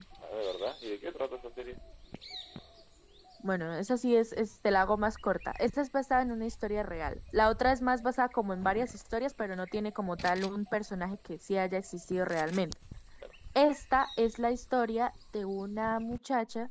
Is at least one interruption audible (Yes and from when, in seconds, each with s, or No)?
No